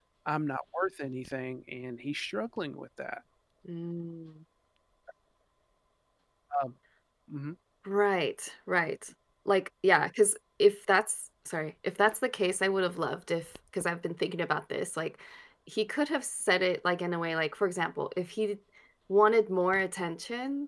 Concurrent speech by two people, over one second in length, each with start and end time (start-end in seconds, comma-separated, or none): none